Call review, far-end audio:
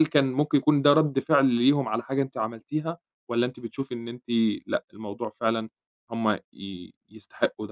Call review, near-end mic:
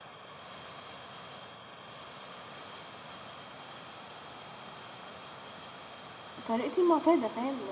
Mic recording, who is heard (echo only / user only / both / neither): user only